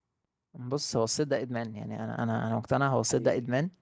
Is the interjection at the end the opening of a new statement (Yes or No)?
No